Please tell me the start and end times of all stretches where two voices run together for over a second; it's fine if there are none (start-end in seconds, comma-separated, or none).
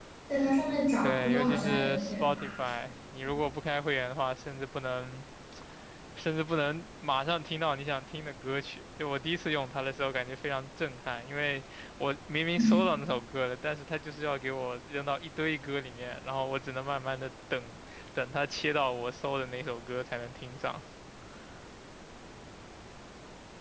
1.0-2.6